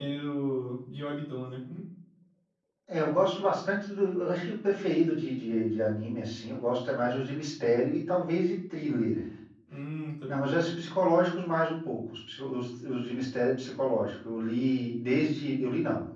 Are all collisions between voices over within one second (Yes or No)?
Yes